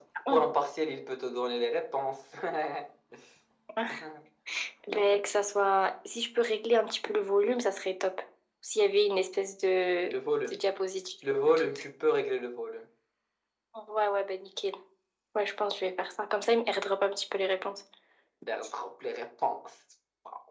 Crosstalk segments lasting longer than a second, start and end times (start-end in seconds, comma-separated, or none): none